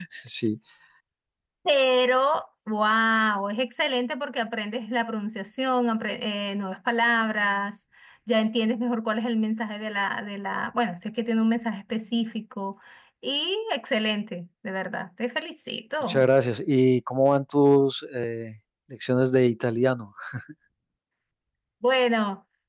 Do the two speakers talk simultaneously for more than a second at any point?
No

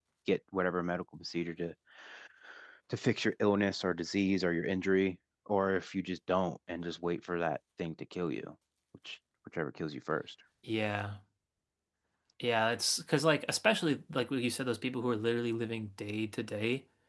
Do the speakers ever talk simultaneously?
No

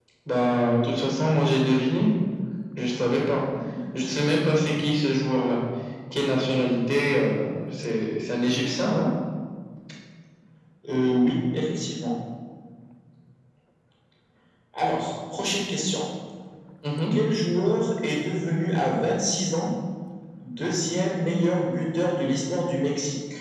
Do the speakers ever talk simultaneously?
No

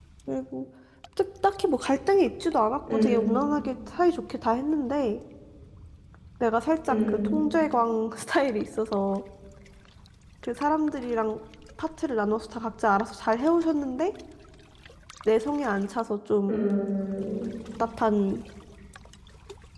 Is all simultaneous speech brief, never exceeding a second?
Yes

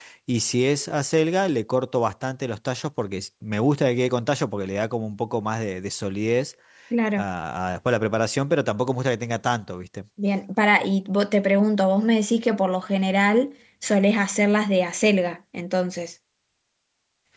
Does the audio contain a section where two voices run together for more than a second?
No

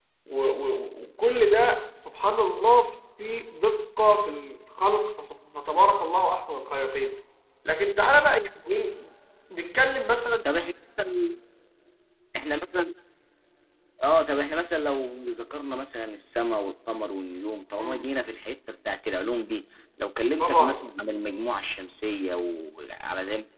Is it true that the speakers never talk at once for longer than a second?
Yes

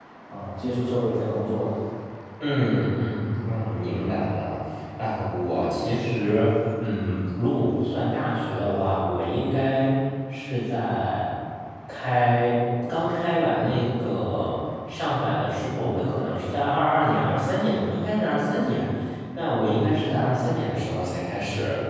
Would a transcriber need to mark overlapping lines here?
No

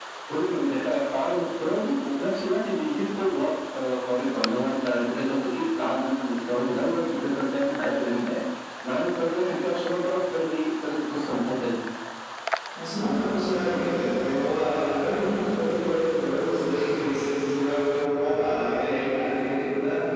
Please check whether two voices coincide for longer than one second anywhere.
No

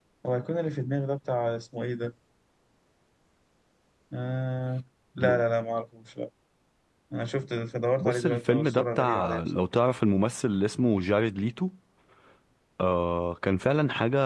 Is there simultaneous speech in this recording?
Yes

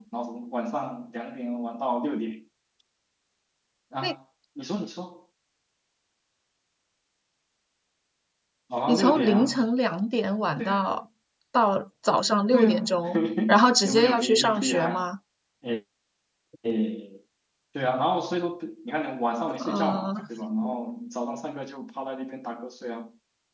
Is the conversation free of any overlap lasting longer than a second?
No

